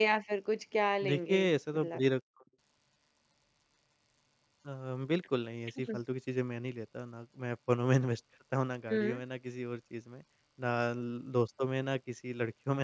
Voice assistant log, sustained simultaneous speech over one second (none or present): none